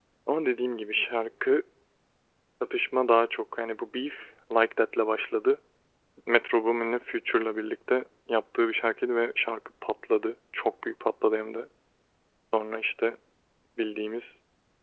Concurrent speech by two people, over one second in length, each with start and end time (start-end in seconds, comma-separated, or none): none